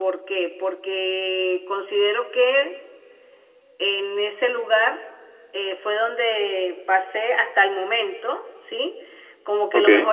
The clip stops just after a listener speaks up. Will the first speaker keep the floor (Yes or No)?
Yes